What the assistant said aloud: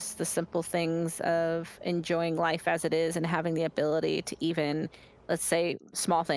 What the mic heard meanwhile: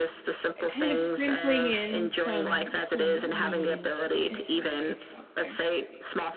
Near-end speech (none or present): present